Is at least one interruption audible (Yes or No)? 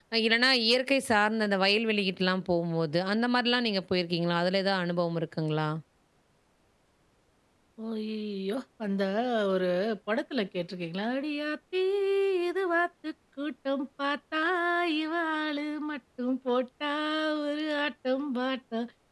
No